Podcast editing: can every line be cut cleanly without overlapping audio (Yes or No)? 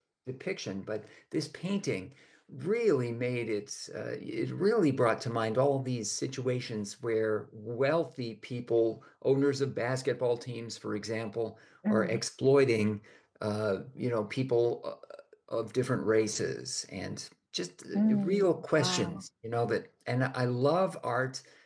No